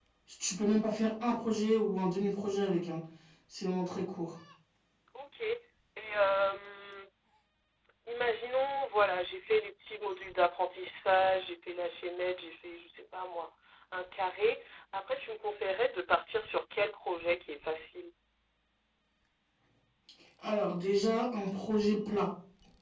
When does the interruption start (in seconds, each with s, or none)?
none